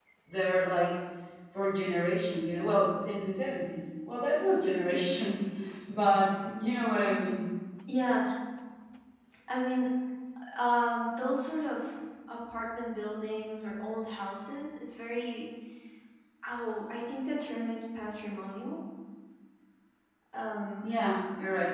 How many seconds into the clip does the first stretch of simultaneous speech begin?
none

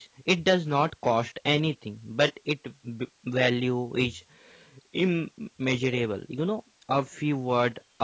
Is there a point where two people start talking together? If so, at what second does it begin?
none

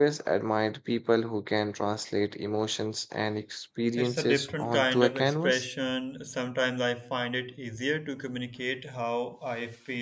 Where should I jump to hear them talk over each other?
4.0 s

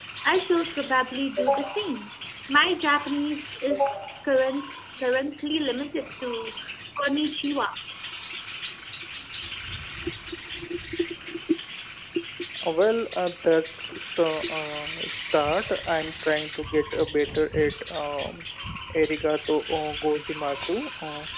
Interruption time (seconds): none

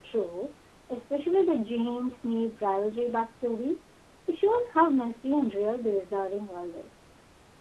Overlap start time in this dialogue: none

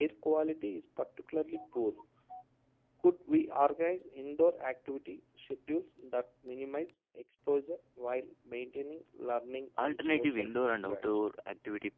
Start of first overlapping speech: 9.8 s

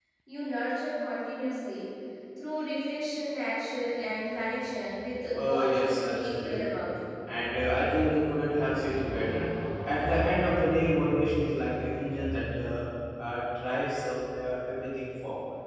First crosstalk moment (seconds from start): 5.2 s

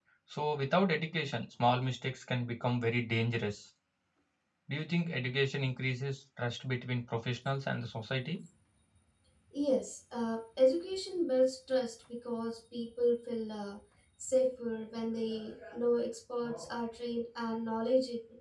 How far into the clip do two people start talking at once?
none

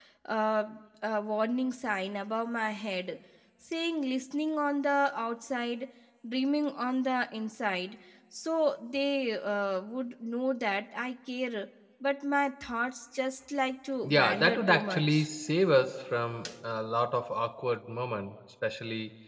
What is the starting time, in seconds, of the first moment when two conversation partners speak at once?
14.0 s

